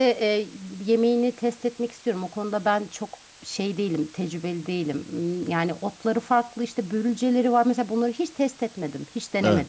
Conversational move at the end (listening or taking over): taking over